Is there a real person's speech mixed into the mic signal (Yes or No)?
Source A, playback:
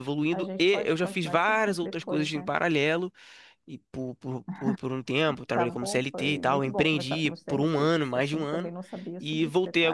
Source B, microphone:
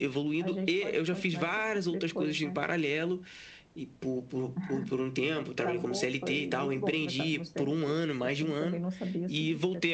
No